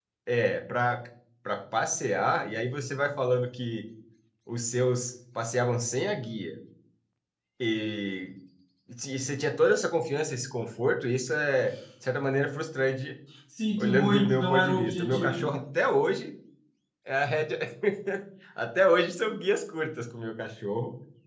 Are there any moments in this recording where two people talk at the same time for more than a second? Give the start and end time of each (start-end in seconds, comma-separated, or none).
13.8-15.4